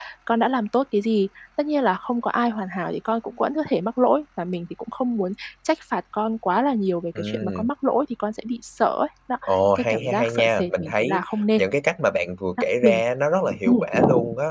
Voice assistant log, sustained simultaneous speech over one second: present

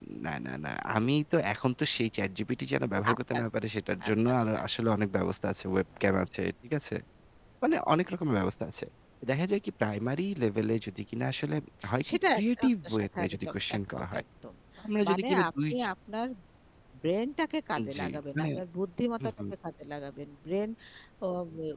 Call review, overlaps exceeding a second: present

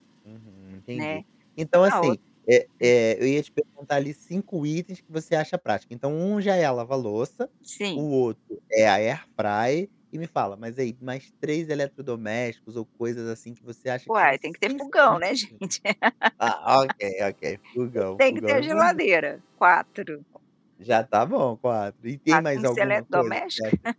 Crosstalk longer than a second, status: present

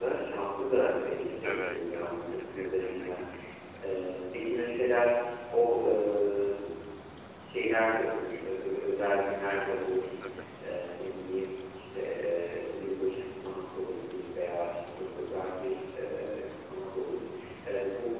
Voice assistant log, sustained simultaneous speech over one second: present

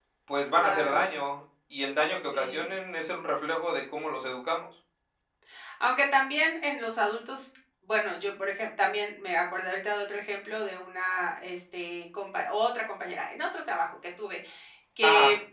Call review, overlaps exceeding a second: none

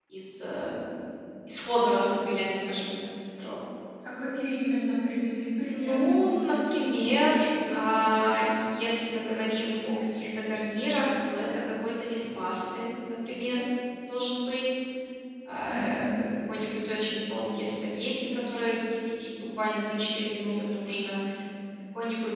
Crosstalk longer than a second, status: present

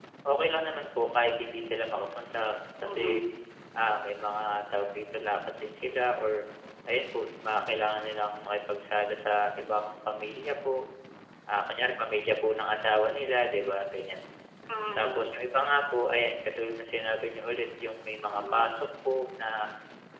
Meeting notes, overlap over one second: none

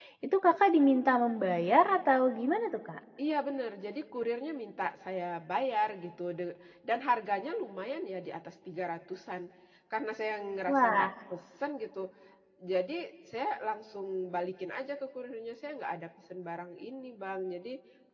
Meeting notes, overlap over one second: none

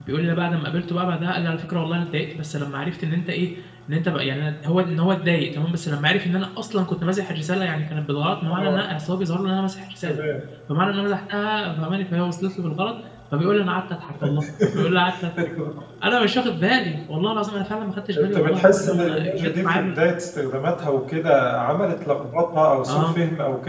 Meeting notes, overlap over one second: present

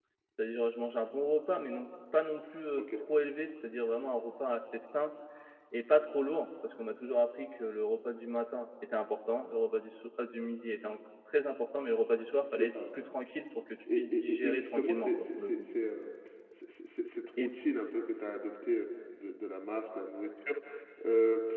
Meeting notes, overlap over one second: present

